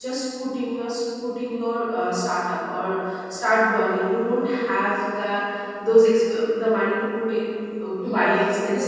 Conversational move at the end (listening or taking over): taking over